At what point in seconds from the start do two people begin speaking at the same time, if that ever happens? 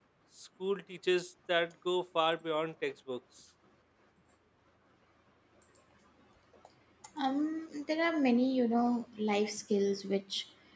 none

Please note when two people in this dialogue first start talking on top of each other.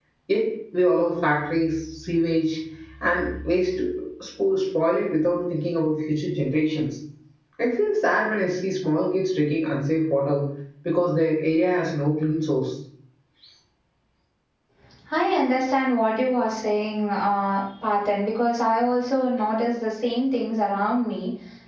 none

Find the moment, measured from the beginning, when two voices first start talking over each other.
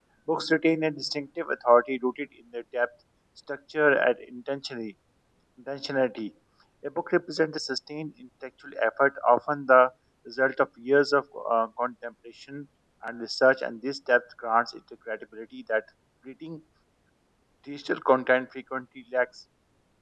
none

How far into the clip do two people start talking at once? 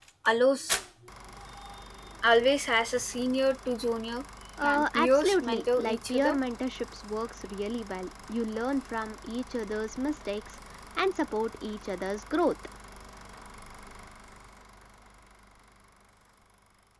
5 s

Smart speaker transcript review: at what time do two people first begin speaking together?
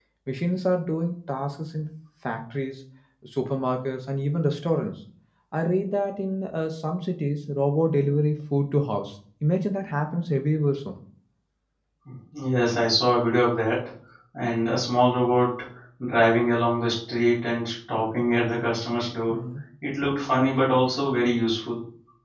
none

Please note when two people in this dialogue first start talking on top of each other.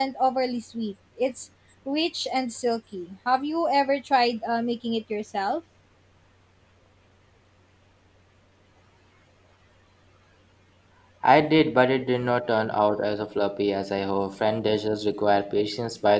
none

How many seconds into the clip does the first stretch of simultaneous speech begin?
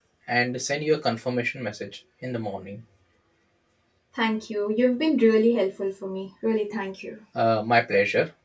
none

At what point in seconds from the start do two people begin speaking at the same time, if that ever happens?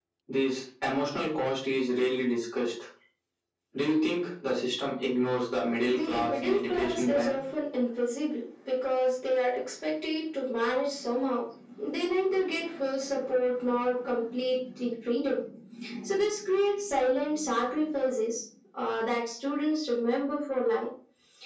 6 s

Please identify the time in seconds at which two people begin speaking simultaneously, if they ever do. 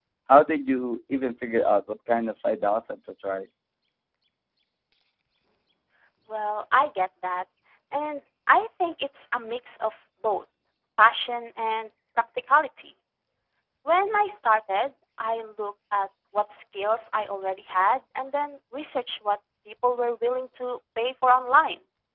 none

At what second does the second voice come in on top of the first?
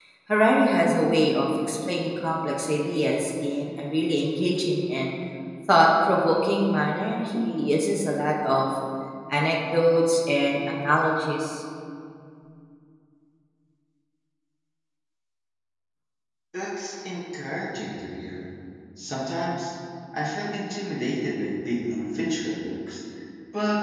none

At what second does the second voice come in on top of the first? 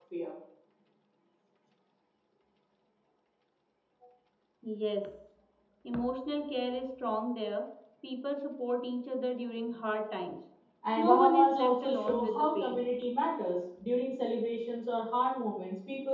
11 s

